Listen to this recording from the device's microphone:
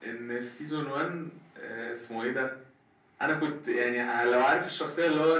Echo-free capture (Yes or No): No